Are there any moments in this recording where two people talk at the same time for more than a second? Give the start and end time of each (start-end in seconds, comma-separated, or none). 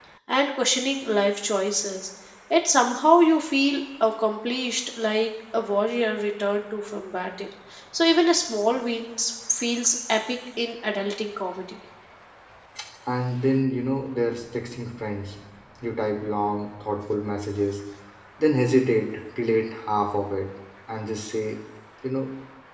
none